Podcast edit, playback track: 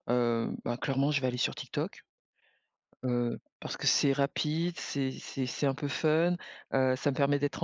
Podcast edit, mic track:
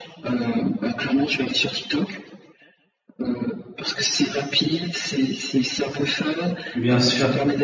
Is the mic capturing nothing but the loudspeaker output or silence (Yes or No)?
No